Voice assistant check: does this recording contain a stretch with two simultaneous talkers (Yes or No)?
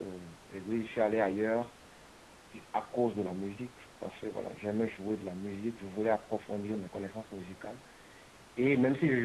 No